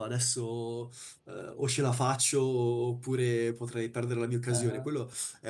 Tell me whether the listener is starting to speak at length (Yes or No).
No